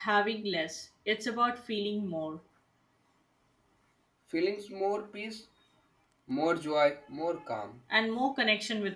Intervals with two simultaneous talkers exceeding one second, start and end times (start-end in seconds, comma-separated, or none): none